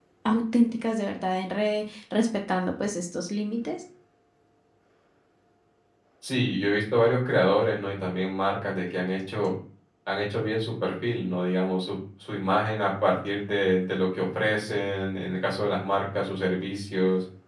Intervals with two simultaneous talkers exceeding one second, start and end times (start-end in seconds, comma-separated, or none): none